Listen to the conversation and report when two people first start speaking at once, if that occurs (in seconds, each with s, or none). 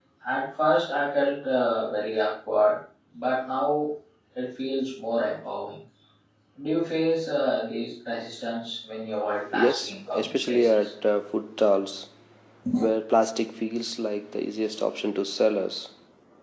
9.5 s